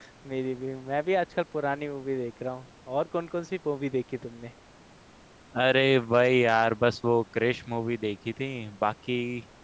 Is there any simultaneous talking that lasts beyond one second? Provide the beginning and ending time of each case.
none

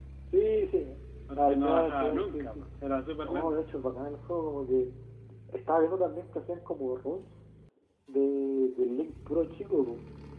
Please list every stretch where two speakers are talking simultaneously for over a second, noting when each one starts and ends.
1.4-2.6

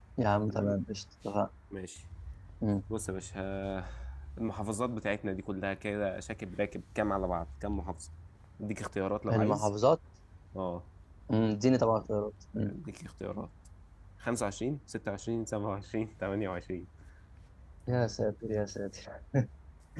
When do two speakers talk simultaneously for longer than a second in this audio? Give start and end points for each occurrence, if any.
none

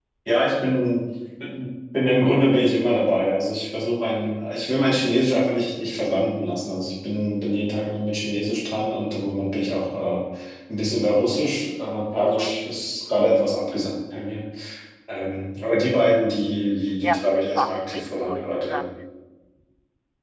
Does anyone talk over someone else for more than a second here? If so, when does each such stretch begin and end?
17.0-18.9

